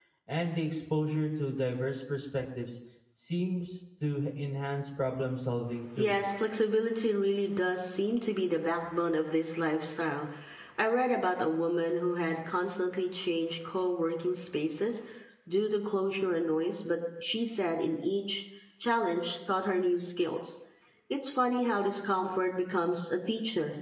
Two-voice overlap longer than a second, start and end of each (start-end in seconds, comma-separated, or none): none